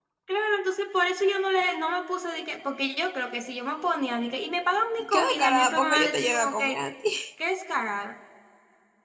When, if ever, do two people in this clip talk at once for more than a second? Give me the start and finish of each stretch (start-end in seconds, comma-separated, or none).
5.1-6.8